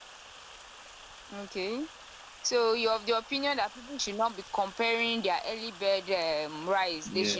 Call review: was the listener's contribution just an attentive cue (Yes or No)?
No